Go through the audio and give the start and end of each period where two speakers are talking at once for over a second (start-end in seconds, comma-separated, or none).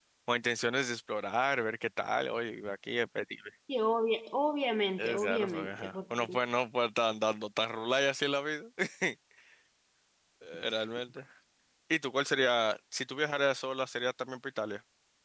5.0-6.2